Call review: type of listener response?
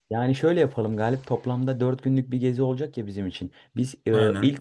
listening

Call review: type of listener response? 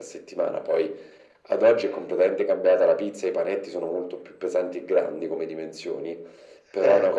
listening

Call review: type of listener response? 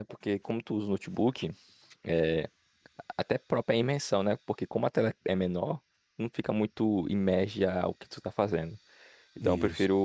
listening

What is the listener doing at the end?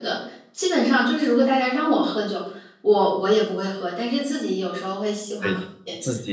taking over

